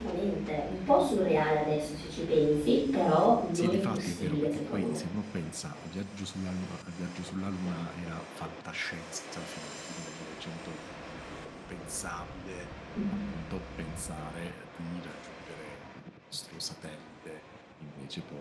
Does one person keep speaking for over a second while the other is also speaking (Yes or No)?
Yes